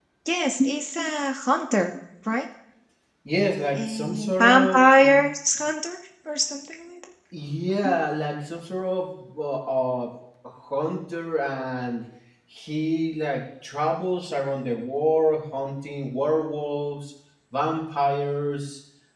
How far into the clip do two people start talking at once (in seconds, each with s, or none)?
3.8 s